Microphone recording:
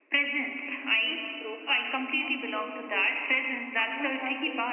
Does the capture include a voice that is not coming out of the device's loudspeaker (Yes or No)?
Yes